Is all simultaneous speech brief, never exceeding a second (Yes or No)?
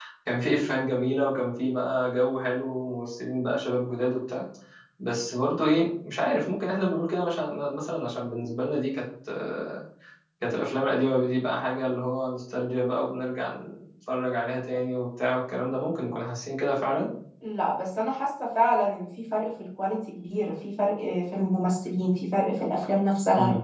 Yes